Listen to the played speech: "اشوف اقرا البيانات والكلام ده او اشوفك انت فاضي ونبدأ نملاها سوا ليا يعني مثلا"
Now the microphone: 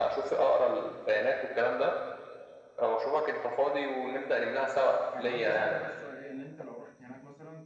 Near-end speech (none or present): present